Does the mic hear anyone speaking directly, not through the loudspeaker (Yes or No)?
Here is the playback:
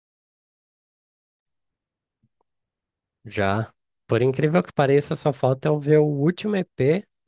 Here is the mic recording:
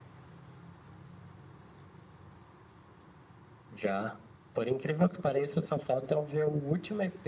No